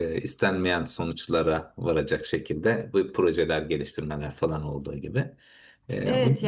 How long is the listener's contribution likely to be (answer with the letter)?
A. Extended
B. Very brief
A